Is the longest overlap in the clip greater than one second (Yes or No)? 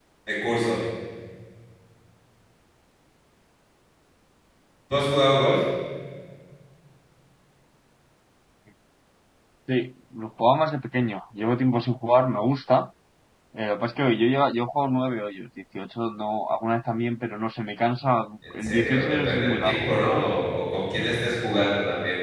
Yes